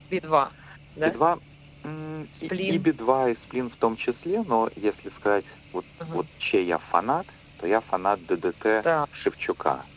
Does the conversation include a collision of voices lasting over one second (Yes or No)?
No